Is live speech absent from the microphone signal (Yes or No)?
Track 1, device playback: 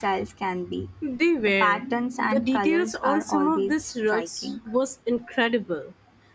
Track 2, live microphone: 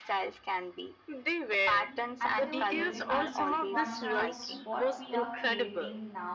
No